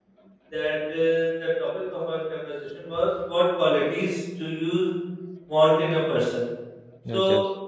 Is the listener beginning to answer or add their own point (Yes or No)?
No